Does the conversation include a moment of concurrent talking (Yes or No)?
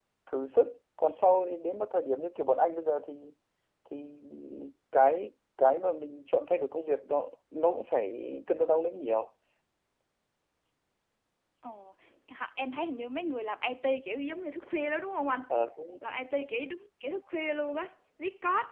No